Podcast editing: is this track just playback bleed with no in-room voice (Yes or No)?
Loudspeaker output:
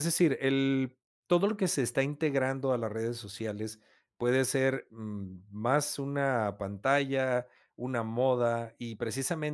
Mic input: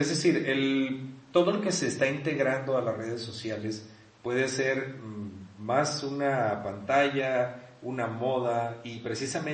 Yes